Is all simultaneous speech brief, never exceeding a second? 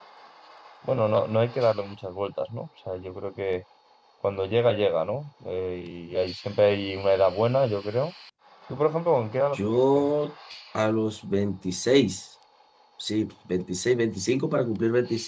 Yes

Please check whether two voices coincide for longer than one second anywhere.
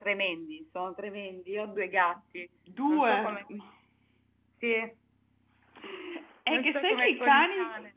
Yes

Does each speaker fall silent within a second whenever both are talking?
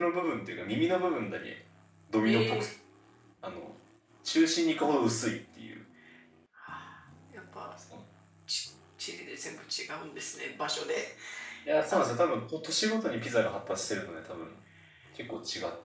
Yes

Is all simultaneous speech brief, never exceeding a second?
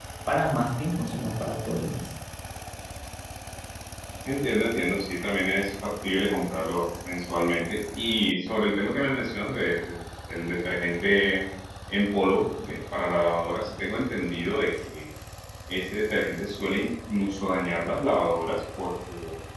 Yes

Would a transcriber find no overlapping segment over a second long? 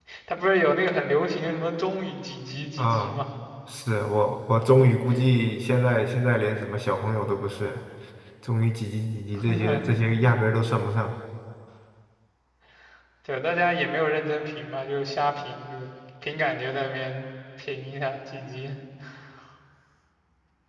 Yes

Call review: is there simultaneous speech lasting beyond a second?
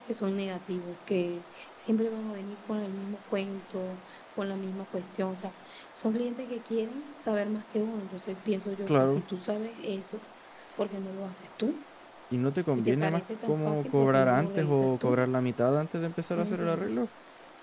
Yes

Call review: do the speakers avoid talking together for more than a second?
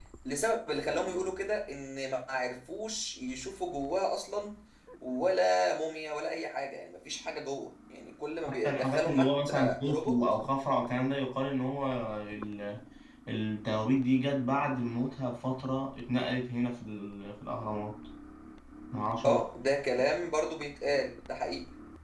No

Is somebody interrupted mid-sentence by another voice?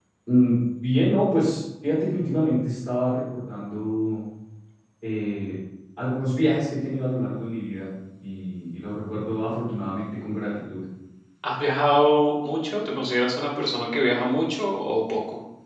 No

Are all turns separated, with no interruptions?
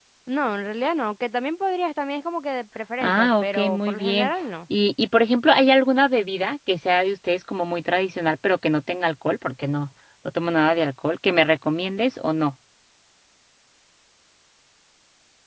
No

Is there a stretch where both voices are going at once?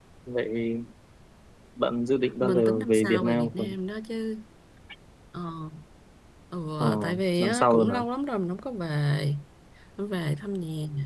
Yes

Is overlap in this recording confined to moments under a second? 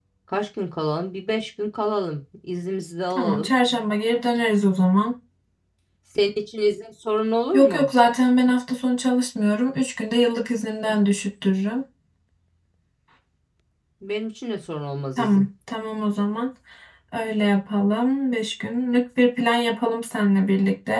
Yes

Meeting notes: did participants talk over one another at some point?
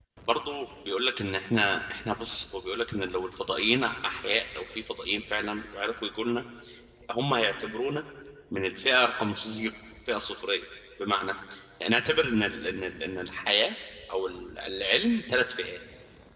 No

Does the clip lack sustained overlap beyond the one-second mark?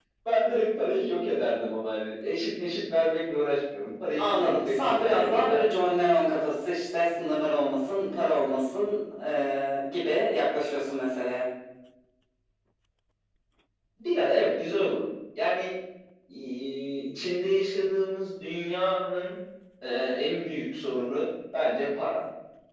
No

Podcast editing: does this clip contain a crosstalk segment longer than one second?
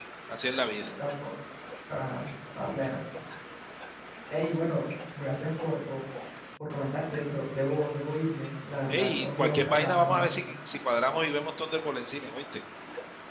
Yes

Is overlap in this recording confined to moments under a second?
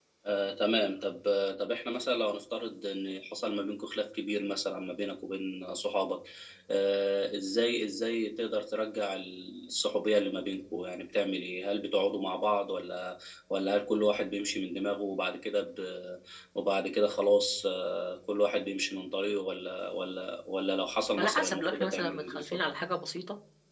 No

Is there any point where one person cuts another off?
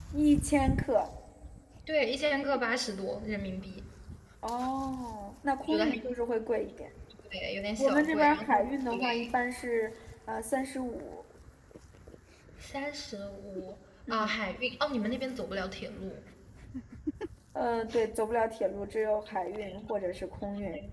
Yes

